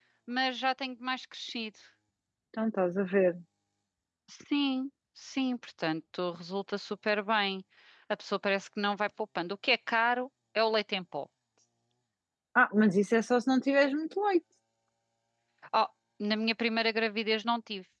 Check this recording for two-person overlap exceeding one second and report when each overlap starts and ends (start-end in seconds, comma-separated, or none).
none